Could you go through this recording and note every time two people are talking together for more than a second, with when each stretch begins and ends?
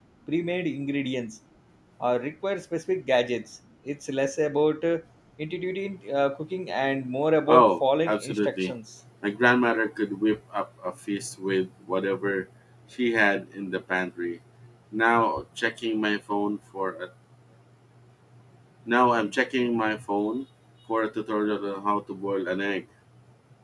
7.5-8.7

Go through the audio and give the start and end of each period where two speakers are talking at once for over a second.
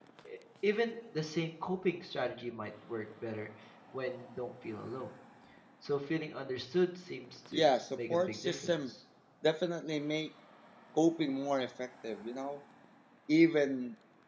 7.5-8.7

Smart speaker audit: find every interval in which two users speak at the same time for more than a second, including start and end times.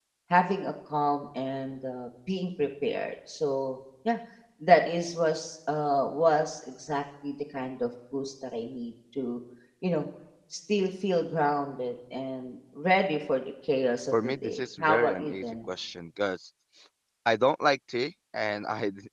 14.1-15.7

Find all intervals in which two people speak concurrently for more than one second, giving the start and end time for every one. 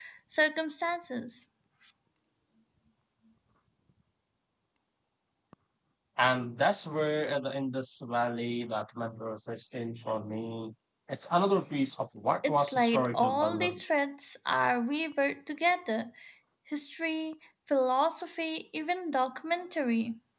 12.5-13.8

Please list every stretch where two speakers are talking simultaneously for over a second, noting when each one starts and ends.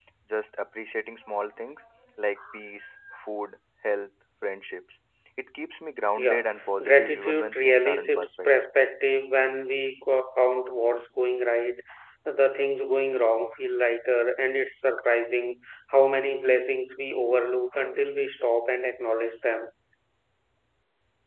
6.2-8.5

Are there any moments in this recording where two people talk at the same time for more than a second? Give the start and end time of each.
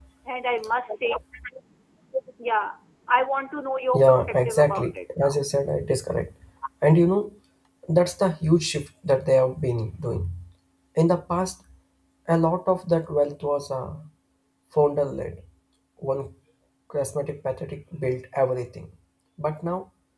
3.9-5.4

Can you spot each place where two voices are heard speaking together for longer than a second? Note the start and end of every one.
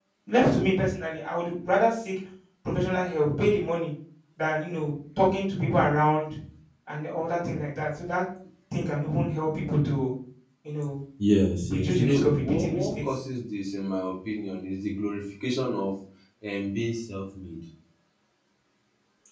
11.7-12.9

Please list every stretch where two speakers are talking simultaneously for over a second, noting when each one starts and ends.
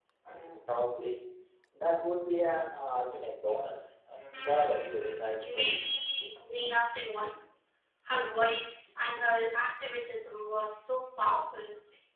4.3-5.9

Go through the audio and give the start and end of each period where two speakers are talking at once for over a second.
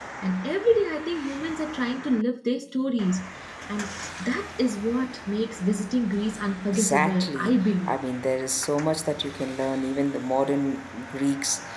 6.7-7.9

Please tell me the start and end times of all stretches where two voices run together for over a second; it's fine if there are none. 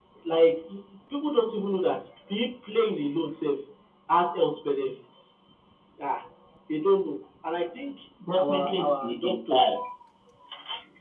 8.4-9.7

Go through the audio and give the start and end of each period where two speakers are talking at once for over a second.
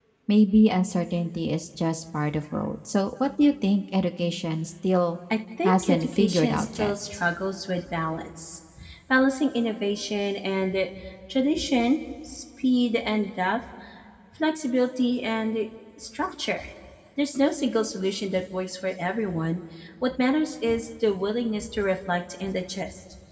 5.6-6.9

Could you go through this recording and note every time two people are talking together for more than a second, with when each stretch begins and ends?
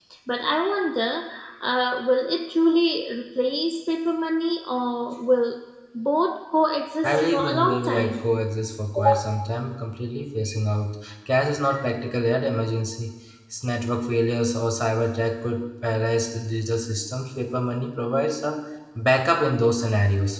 7.0-8.3

